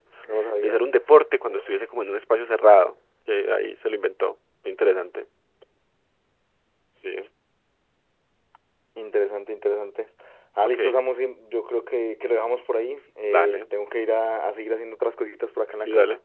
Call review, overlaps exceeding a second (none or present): none